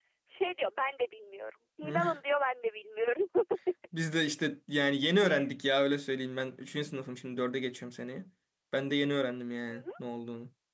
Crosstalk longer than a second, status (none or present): none